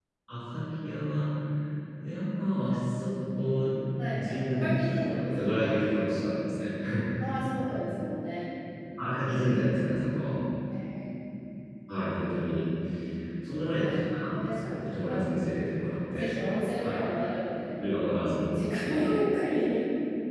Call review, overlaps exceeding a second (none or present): present